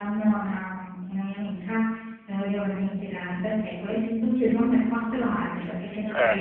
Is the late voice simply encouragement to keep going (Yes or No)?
Yes